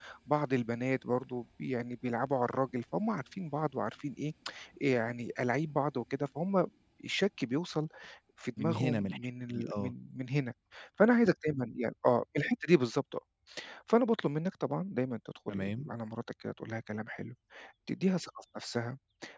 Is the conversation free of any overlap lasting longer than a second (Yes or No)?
No